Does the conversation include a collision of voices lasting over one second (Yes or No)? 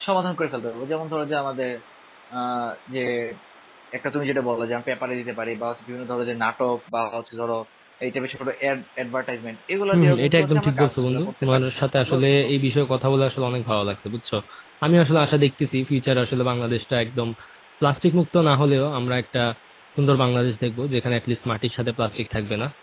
Yes